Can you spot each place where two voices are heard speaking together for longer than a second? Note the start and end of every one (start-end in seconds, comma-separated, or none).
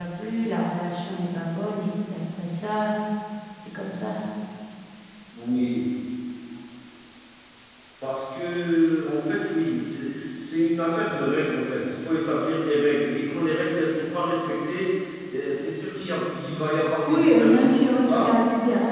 17.1-18.4